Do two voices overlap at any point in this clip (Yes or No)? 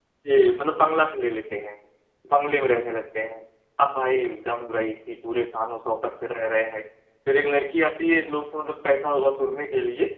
No